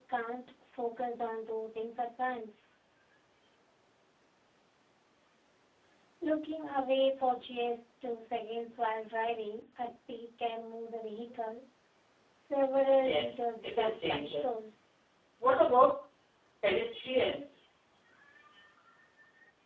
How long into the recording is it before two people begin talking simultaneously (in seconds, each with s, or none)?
12.9 s